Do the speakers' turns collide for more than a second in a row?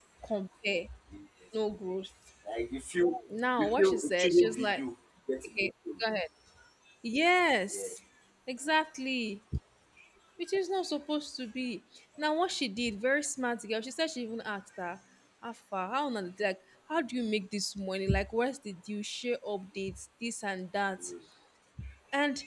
Yes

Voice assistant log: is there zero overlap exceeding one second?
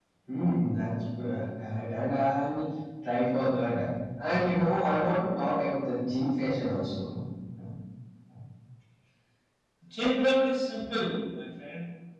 Yes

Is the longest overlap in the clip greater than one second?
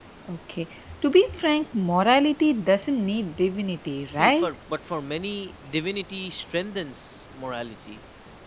No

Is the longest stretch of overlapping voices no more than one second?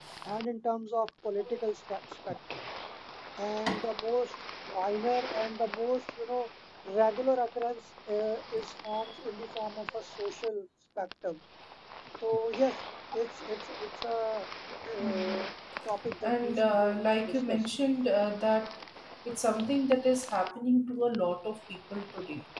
No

